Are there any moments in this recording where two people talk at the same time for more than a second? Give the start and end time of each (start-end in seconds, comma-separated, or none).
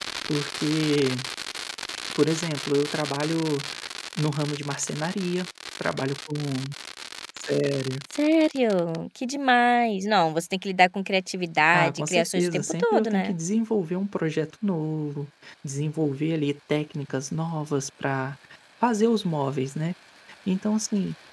11.7-13.3